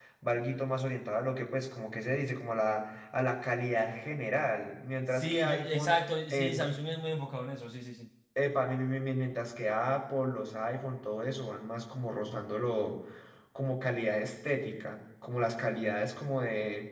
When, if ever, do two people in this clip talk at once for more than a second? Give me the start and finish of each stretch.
5.1-6.5

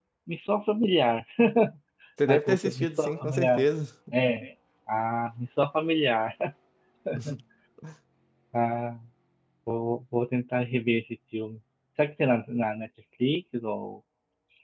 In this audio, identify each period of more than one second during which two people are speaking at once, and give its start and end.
2.3-3.6

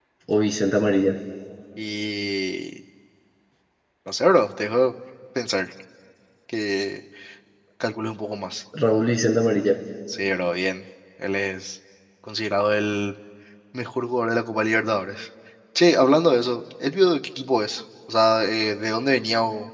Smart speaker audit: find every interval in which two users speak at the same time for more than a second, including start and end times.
none

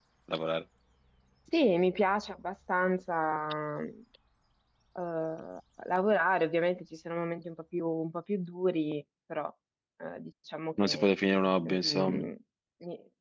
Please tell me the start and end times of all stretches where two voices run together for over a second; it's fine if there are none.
none

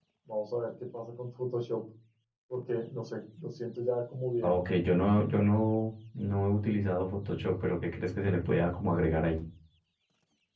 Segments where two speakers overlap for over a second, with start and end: none

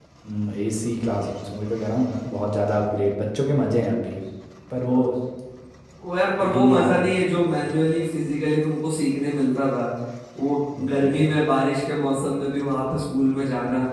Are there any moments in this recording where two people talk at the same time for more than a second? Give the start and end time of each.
6.4-7.8

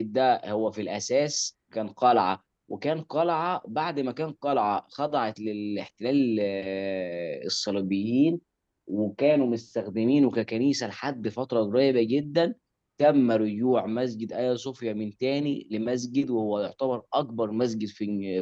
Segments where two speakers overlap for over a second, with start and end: none

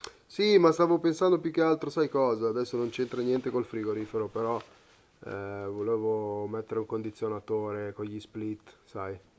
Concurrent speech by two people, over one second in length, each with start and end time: none

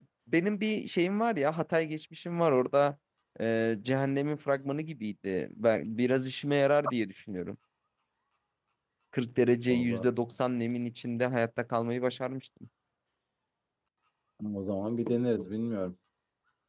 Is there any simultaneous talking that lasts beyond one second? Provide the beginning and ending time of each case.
none

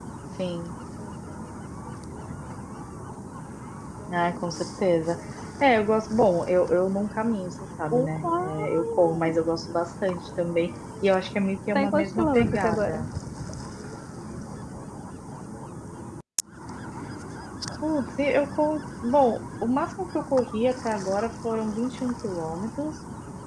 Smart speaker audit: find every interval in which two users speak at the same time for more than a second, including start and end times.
8.0-9.2, 11.7-13.0

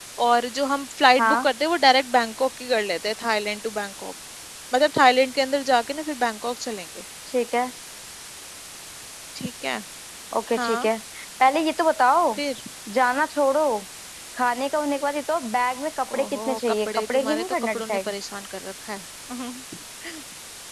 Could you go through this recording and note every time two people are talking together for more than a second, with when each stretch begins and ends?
16.1-18.1

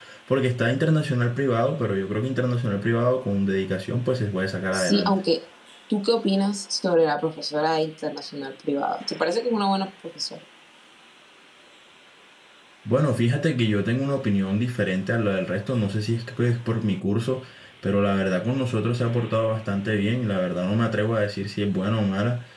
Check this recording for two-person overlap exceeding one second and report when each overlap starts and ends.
none

